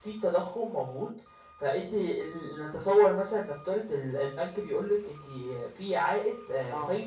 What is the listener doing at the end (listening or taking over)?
listening